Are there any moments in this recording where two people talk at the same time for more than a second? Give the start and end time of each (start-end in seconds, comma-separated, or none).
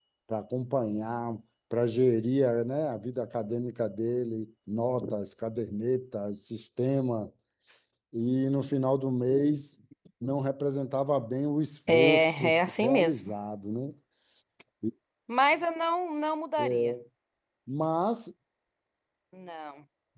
11.9-13.3